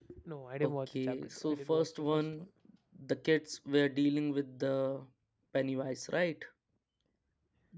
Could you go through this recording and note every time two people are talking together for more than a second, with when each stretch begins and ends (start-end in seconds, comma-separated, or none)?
0.6-2.2